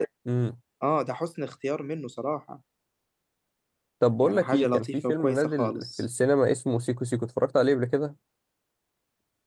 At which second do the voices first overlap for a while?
4.2 s

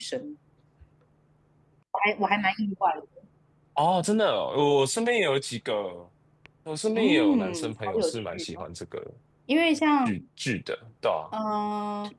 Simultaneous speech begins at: 7.0 s

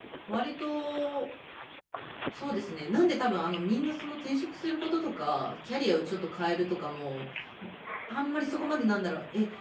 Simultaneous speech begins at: none

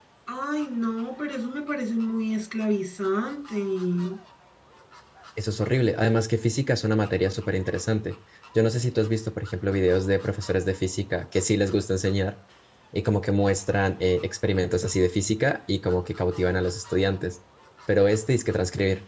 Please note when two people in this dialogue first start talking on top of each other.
none

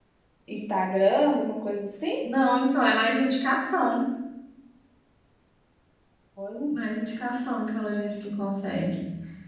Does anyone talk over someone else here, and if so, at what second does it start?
none

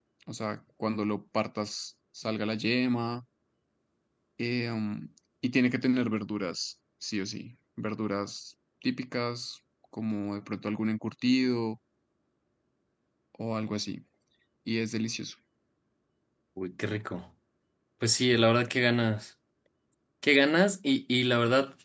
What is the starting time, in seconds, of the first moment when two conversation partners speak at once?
none

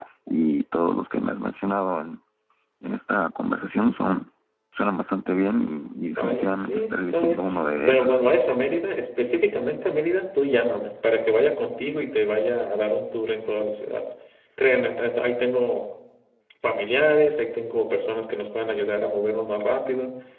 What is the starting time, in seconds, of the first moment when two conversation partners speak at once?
6.2 s

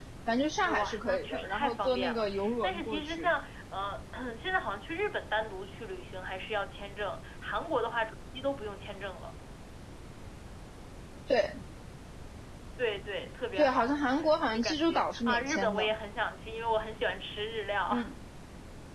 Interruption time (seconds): 0.6 s

